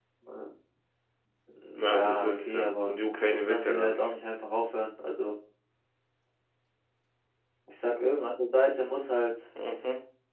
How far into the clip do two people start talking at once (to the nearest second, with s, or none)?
2 s